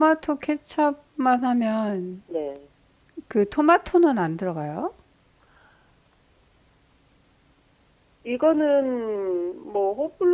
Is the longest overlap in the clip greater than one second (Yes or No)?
No